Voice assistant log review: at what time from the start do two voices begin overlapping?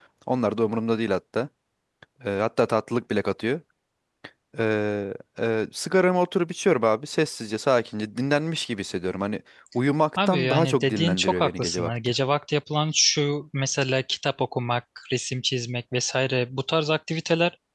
10.2 s

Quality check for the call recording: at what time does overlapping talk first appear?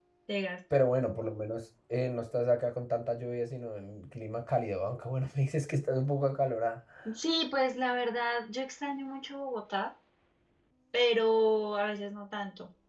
none

